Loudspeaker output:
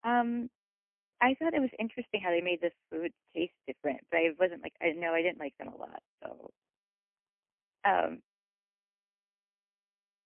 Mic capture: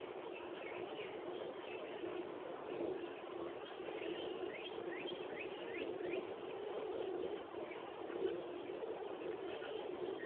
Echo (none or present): none